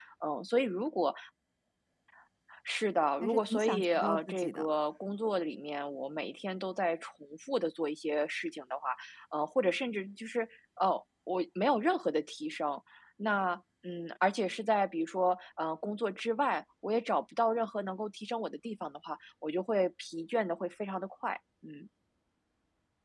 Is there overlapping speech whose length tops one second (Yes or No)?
Yes